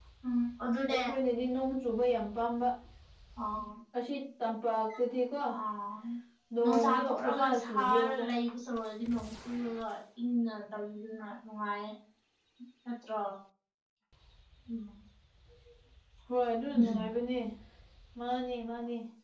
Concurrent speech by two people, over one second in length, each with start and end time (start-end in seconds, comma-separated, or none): 6.6-8.2